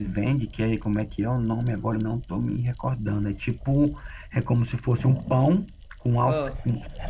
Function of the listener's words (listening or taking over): listening